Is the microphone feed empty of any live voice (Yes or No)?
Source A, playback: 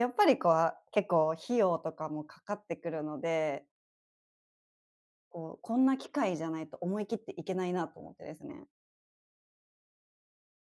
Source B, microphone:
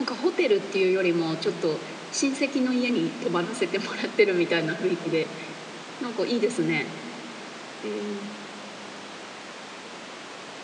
No